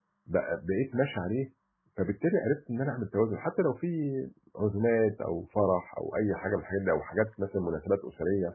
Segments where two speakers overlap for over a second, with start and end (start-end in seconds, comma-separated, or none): none